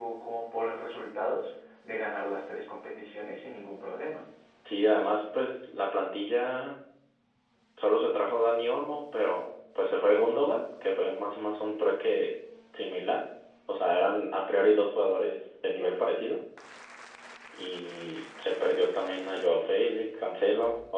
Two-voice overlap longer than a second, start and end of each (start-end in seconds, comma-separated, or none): none